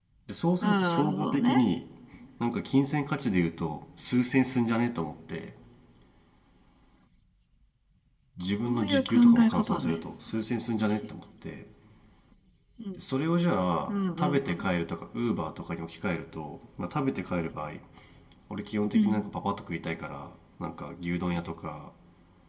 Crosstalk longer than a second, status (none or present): present